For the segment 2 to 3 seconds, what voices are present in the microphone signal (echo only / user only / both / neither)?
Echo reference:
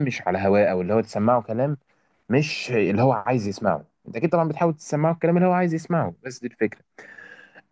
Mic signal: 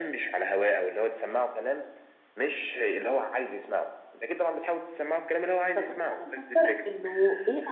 echo only